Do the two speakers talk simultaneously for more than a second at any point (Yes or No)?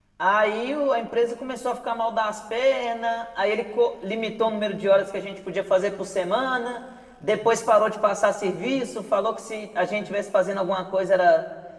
No